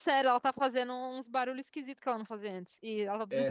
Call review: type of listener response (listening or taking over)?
taking over